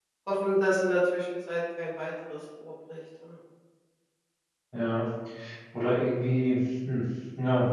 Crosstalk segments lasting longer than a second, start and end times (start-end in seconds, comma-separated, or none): none